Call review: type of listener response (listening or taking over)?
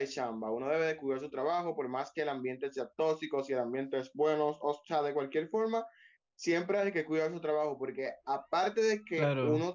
listening